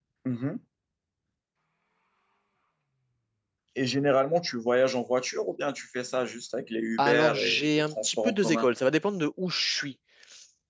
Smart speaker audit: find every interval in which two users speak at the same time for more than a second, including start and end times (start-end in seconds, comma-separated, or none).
7.0-8.7